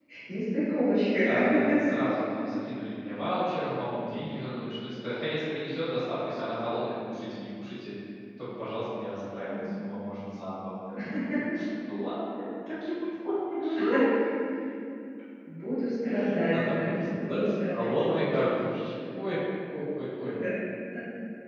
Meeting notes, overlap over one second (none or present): present